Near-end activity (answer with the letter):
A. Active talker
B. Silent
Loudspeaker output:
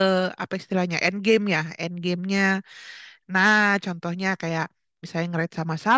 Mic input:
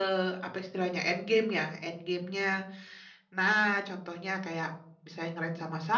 B